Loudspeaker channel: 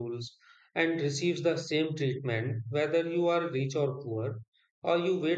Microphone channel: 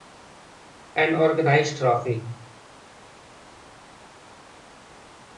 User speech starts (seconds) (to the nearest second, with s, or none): 1 s